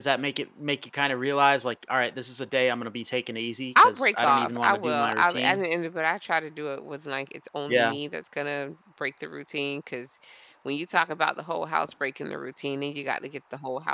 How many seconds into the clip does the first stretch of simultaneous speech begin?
3.8 s

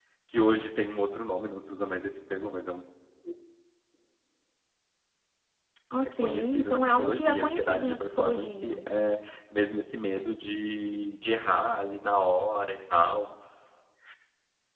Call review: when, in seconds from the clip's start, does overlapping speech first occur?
6.0 s

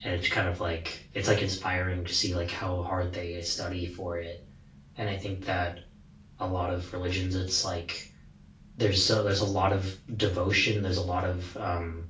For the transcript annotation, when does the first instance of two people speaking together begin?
none

